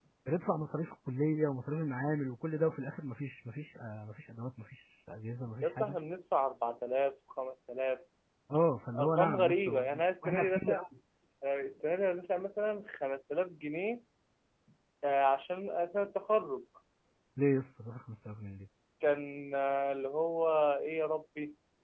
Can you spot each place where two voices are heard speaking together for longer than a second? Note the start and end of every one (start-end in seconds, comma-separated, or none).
9.0-10.8